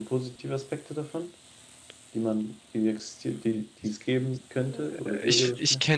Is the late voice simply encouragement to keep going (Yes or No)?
No